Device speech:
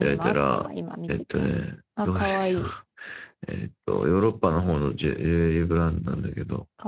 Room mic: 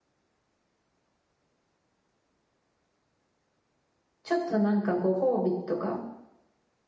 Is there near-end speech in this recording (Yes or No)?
Yes